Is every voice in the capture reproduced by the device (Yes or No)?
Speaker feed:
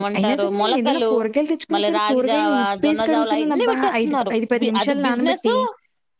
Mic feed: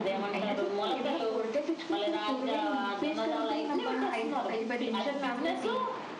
Yes